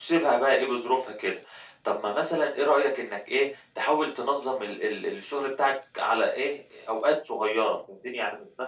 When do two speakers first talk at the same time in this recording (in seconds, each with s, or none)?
none